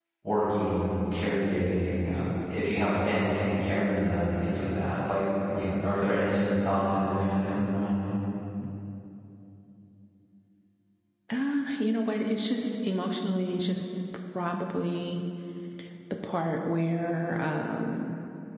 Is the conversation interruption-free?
Yes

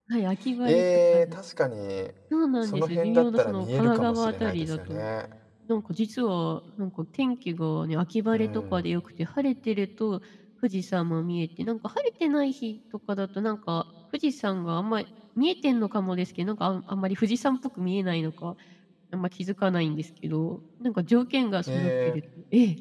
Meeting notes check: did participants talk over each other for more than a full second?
Yes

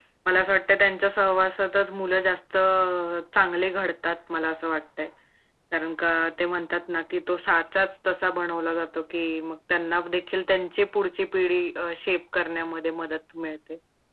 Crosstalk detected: No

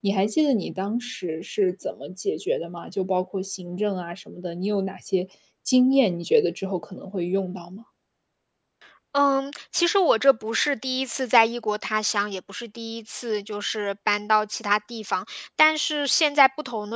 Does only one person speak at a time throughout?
Yes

